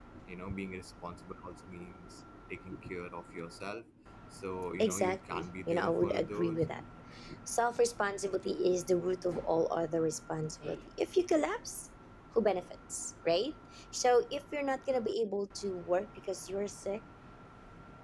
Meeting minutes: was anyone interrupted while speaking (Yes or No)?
Yes